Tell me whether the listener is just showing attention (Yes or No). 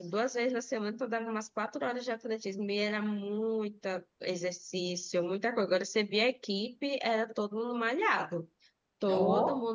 Yes